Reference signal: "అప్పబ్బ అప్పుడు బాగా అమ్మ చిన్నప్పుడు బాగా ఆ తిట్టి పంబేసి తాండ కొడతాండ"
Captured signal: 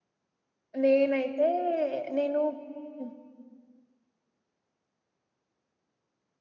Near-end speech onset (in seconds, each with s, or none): 0.8 s